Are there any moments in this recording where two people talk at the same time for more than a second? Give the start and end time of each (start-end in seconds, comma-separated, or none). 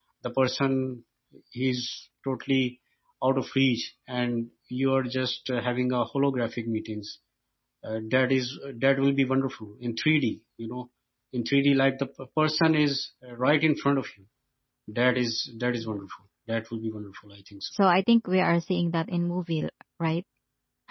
none